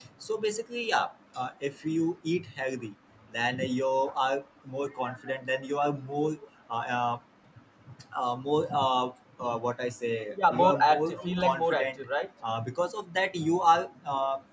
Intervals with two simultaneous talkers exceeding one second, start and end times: 10.5-12.0

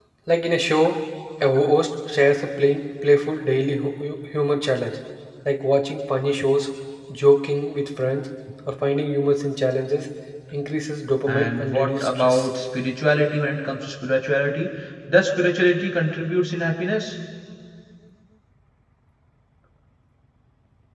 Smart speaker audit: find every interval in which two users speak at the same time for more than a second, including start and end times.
11.3-12.5

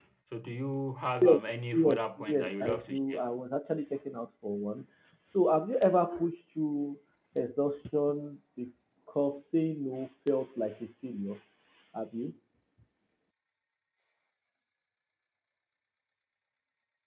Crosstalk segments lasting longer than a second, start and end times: 1.2-3.2

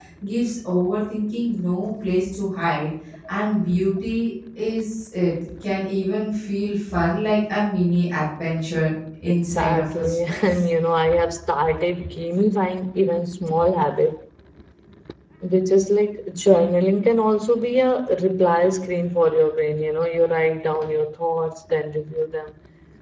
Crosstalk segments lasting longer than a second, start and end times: 9.2-10.7

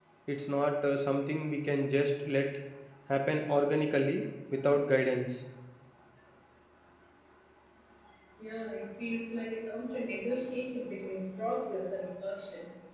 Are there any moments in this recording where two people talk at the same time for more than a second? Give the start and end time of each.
none

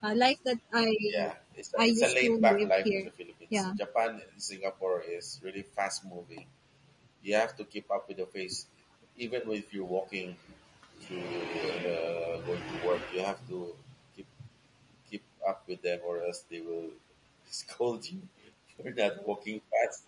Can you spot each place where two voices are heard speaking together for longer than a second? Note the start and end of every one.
1.8-3.1

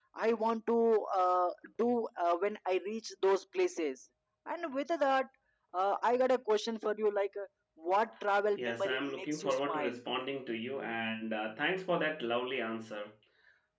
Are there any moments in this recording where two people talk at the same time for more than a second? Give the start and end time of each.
8.6-10.0

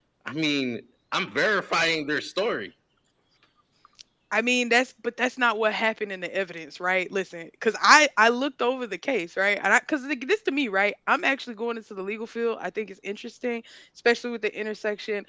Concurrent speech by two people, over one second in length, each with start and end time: none

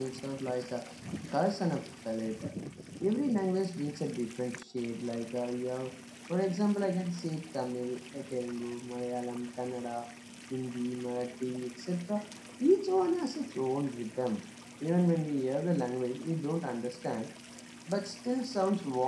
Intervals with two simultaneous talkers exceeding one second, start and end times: none

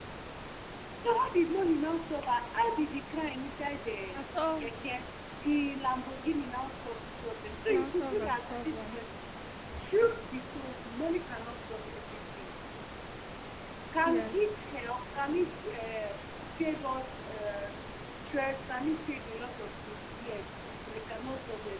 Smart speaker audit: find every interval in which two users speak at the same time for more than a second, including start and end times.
7.7-9.0

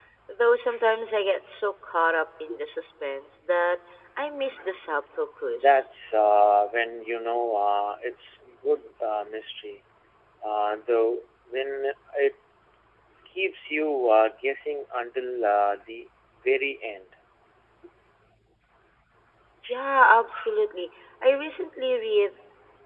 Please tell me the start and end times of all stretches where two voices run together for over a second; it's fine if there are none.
none

